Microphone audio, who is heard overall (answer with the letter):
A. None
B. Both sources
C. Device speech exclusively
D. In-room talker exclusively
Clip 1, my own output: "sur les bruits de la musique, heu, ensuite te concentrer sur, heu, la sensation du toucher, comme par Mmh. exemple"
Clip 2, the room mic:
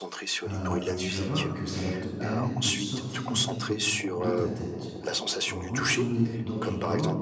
B